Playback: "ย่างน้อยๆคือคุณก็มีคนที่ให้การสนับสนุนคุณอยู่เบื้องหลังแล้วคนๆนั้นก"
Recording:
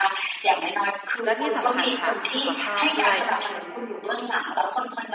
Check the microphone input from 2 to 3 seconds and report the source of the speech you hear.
both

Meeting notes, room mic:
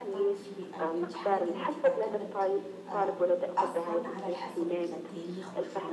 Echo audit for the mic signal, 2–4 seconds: both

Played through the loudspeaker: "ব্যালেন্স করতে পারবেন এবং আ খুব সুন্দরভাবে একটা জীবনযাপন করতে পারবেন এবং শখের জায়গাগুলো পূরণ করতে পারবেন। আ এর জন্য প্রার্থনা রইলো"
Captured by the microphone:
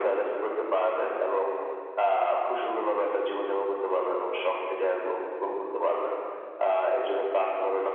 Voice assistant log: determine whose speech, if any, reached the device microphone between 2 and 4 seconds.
echo only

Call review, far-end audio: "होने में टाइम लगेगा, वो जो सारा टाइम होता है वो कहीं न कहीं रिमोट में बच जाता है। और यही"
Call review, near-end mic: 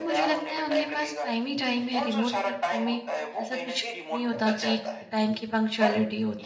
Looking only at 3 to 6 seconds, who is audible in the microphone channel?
both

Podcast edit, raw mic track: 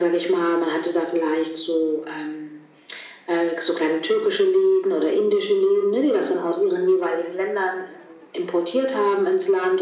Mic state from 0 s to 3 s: echo only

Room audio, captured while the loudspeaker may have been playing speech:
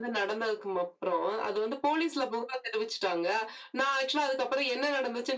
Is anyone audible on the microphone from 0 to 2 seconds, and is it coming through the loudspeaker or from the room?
echo only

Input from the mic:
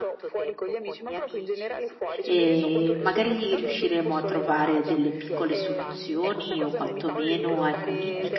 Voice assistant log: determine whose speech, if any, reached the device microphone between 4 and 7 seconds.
both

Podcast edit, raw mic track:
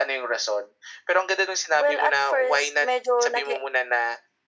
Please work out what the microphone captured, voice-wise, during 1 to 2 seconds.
echo only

